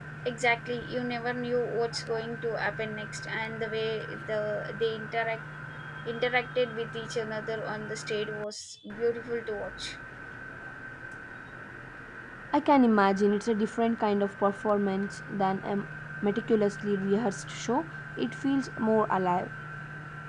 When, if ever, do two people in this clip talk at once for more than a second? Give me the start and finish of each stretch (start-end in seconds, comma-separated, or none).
none